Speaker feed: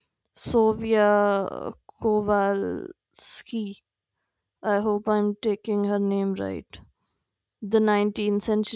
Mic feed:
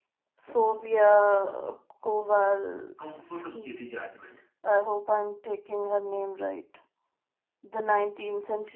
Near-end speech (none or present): present